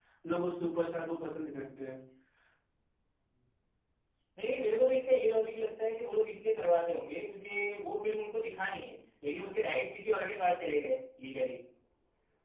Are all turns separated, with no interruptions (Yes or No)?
Yes